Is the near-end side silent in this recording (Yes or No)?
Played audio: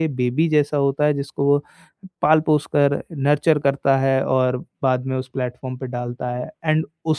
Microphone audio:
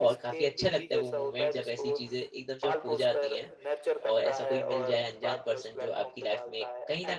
No